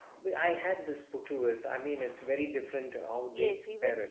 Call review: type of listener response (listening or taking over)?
taking over